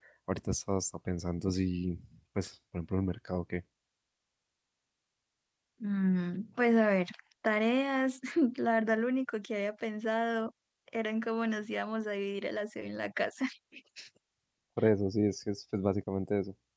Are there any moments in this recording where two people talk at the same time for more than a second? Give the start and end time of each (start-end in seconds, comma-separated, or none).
none